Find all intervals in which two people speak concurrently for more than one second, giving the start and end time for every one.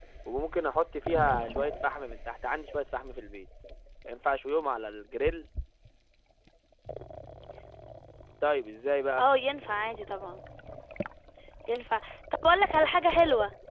none

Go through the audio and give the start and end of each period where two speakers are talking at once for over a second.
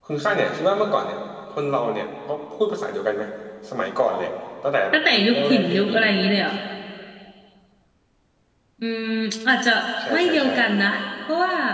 4.9-6.3

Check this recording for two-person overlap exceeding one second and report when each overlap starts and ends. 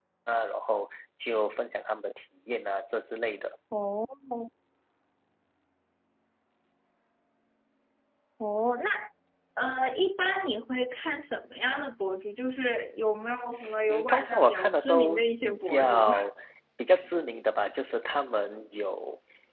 13.9-16.0

